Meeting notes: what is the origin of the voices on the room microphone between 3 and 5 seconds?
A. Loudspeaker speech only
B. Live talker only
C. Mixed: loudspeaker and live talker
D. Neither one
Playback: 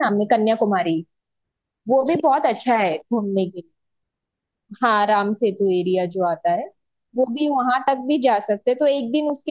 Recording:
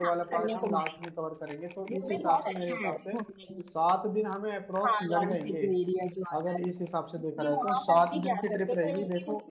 C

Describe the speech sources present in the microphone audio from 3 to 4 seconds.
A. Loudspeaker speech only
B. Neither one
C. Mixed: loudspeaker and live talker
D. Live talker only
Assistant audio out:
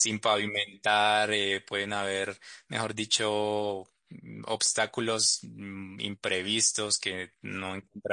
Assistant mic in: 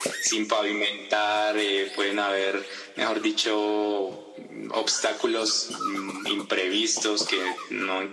A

